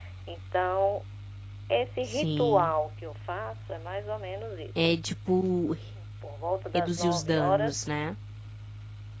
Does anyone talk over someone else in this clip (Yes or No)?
Yes